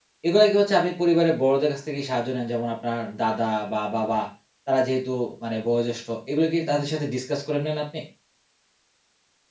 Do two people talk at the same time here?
No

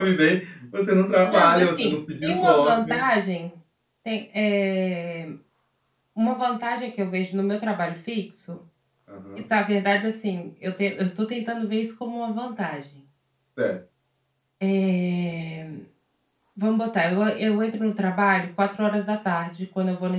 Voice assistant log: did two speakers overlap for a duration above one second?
Yes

